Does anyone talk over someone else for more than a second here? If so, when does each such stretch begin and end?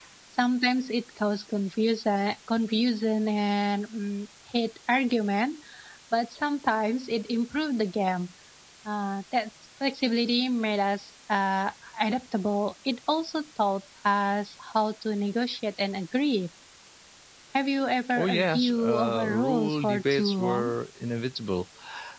18.1-20.7

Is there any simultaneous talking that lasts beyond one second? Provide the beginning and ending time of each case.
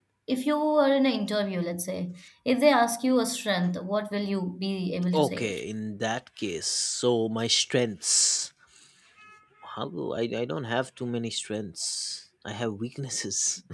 none

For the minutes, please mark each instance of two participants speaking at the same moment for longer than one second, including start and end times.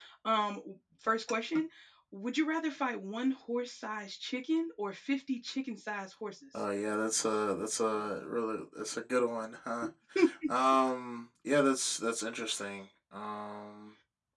none

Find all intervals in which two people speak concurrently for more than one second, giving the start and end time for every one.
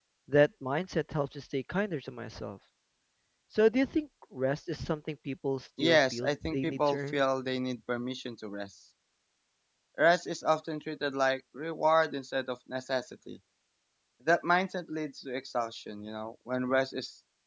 5.8-7.2

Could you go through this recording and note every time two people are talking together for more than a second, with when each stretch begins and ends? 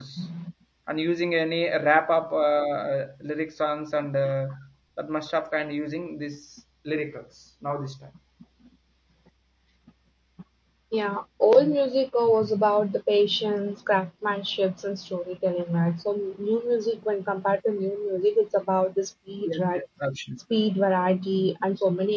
none

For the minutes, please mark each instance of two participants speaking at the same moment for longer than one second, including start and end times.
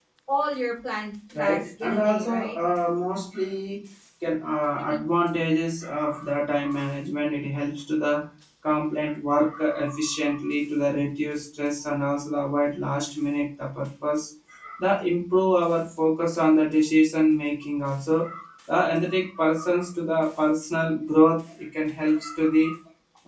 1.4-2.6

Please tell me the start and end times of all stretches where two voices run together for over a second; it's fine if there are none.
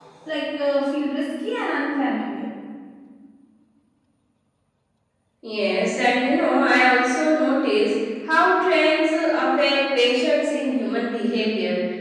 none

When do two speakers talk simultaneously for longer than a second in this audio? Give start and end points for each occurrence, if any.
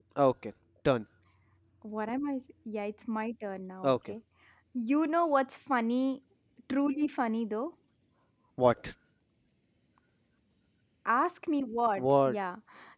none

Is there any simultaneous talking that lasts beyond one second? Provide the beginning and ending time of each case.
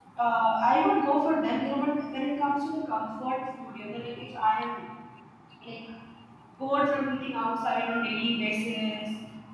none

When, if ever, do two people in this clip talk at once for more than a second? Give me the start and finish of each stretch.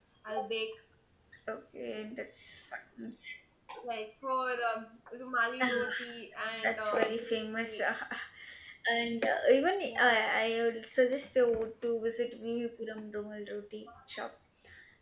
6.6-7.8

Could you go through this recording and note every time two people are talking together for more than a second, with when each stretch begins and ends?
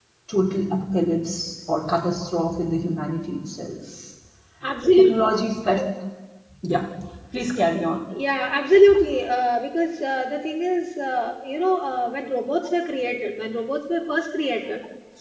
none

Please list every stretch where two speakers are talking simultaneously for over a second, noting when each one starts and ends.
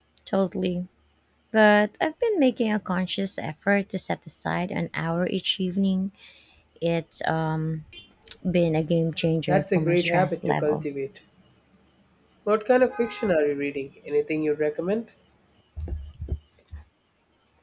9.5-10.8

